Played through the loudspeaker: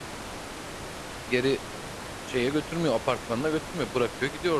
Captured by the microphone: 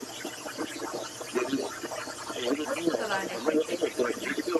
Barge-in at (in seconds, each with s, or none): 2.6 s